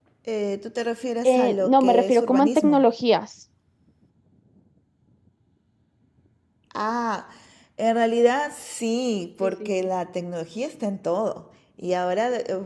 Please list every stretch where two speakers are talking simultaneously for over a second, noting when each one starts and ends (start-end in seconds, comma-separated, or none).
1.2-2.8